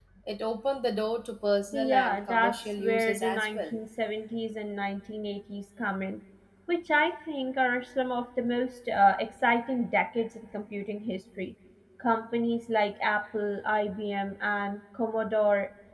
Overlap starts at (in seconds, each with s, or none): 1.7 s